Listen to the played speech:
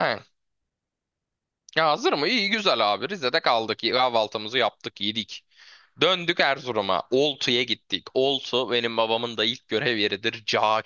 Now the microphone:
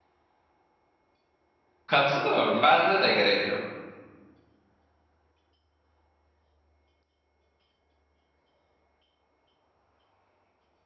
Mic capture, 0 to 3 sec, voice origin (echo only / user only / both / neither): user only